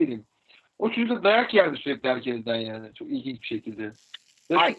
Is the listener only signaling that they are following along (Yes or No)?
No